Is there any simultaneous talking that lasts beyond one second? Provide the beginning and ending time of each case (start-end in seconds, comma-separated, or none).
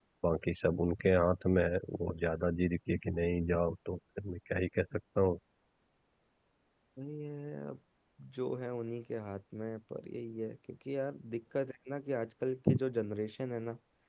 none